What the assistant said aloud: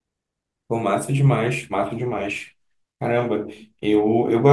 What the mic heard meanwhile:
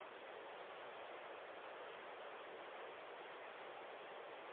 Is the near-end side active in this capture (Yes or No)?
No